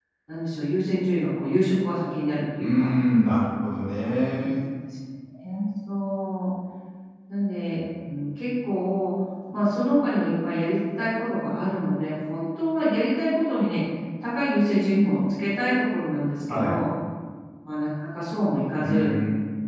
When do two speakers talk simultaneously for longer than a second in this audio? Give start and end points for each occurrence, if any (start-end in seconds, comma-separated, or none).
none